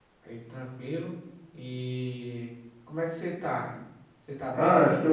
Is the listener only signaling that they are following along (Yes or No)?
No